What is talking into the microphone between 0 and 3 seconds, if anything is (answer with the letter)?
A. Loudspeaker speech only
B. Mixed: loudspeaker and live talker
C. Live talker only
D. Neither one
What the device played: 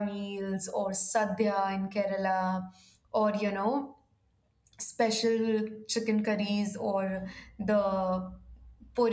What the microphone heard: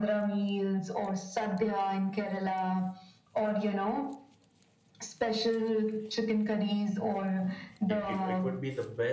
A